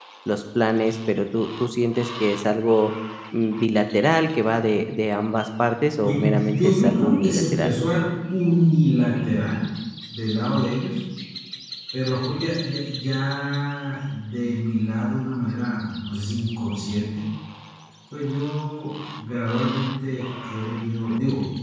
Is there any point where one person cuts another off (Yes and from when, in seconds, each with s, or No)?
Yes, from 6.0 s